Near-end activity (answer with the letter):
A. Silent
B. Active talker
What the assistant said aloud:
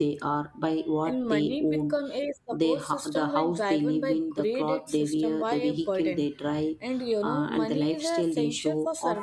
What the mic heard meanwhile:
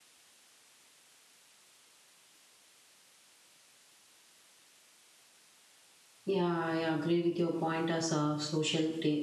B